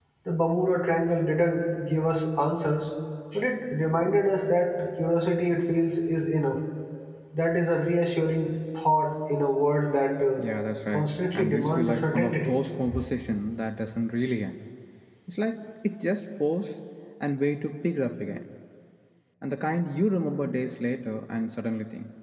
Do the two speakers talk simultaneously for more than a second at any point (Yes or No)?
Yes